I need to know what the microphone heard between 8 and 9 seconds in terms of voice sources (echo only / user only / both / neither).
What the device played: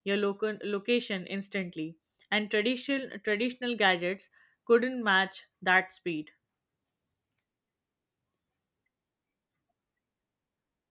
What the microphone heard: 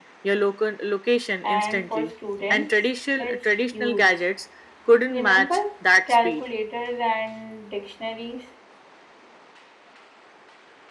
user only